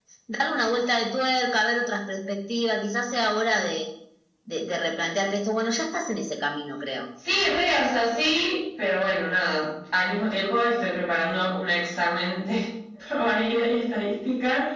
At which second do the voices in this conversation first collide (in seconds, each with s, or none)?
none